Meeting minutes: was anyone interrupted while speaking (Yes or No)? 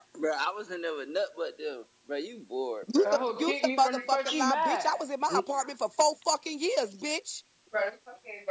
Yes